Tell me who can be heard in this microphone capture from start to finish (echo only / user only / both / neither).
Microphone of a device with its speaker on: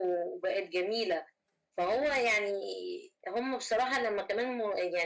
echo only